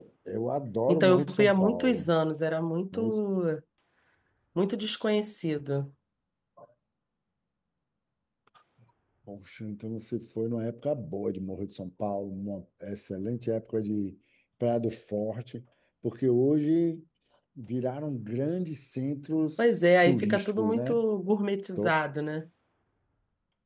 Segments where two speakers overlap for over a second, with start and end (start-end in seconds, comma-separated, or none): 0.9-2.1, 19.6-21.0